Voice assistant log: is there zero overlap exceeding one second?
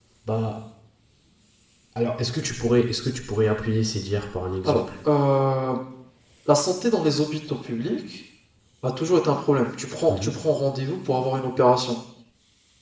Yes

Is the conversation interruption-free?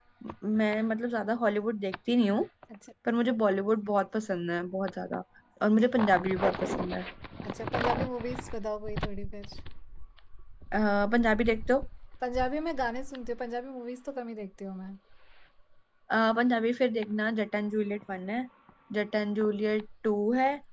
Yes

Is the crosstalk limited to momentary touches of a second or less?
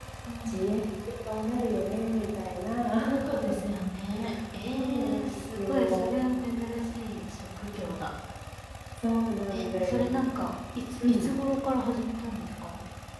No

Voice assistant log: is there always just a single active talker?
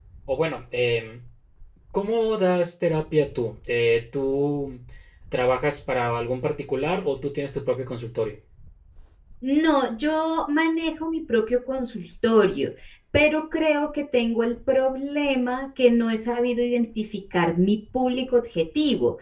Yes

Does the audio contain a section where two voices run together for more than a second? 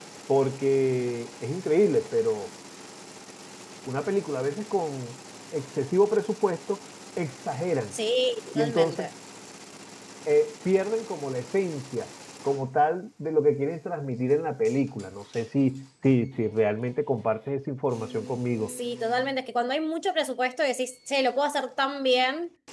No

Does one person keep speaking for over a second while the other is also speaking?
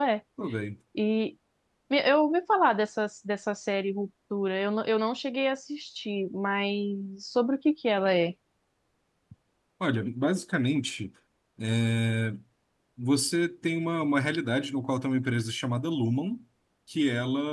No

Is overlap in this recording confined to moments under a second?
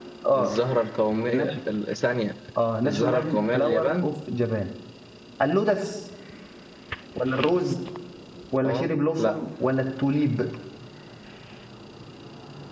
No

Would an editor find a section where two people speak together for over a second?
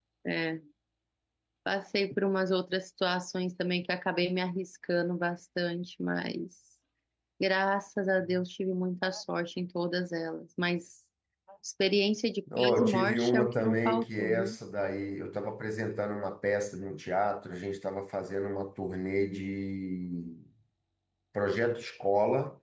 Yes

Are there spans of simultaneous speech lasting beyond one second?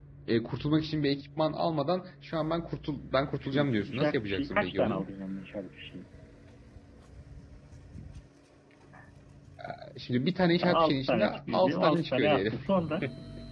Yes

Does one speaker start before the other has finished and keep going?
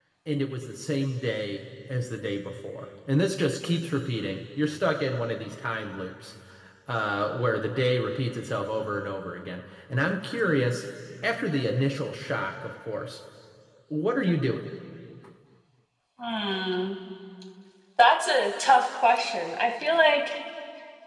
No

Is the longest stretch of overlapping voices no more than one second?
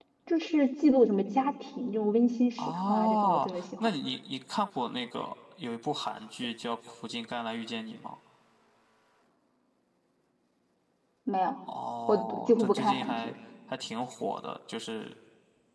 No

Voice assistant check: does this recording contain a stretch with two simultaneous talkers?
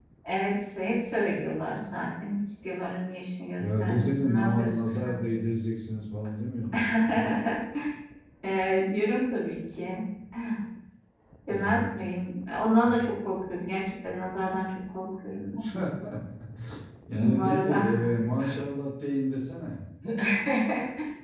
Yes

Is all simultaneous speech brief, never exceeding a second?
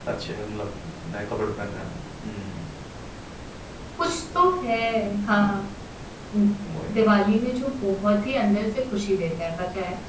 Yes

